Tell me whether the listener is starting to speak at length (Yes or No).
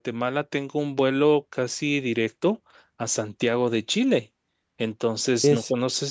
No